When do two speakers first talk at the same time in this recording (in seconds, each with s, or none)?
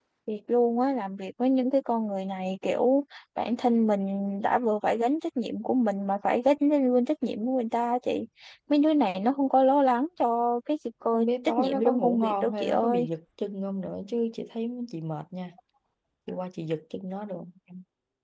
11.1 s